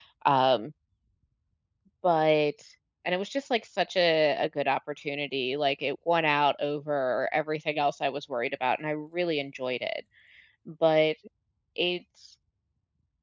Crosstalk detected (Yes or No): No